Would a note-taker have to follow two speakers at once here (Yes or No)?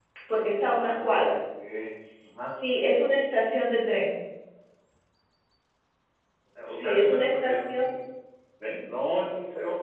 Yes